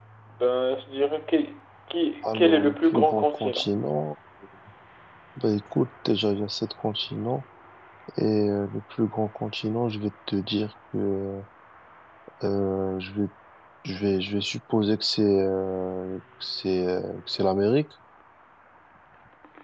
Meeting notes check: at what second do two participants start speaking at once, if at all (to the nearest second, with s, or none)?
2 s